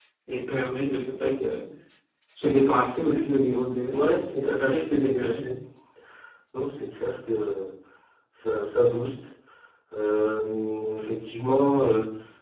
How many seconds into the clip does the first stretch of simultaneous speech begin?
4 s

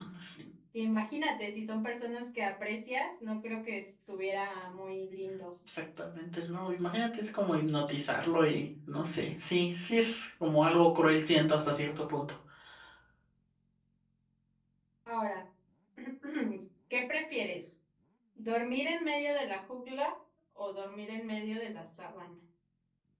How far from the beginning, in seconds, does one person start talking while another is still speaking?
none

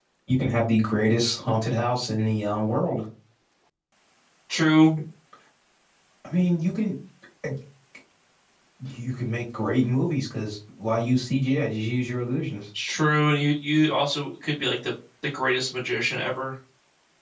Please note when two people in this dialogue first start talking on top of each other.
none

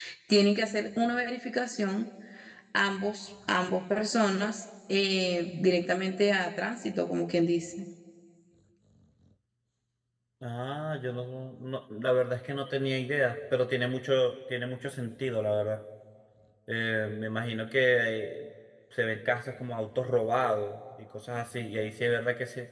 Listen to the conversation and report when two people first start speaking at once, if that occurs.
none

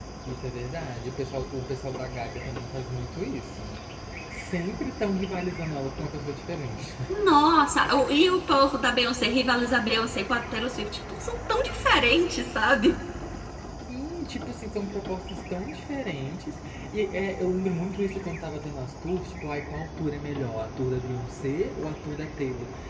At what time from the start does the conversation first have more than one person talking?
none

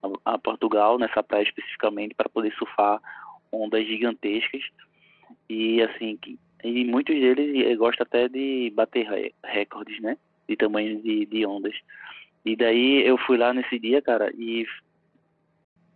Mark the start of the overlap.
none

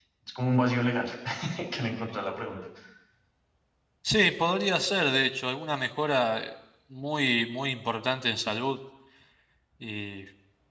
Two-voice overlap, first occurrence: none

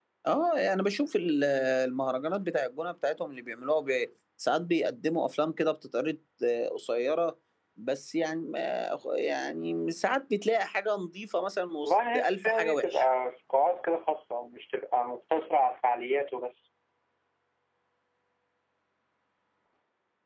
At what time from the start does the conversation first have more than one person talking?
12 s

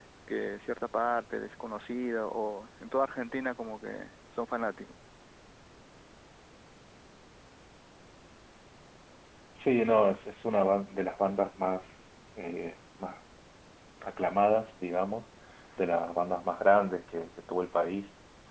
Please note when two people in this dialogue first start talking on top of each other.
none

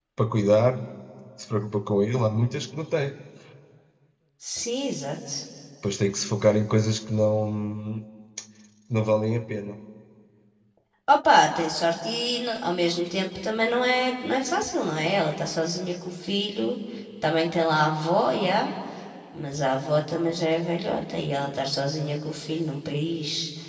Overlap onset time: none

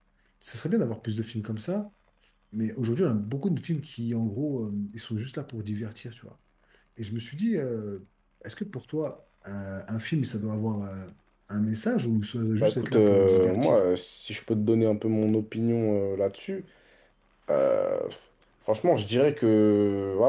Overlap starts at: 13 s

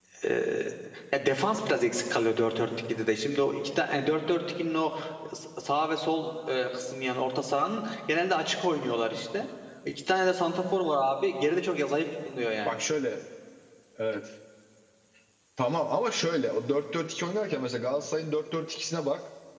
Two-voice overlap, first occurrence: none

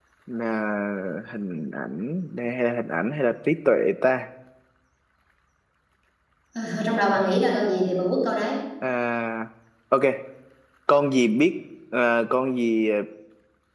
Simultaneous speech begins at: none

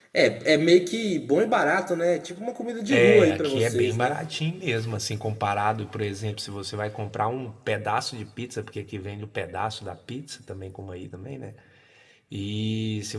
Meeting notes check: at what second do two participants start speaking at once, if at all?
3 s

